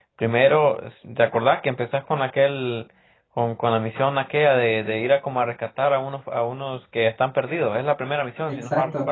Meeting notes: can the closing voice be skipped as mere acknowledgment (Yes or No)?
No